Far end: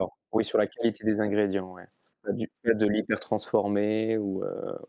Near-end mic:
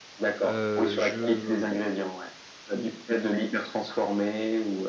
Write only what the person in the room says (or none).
heu, je, mmh,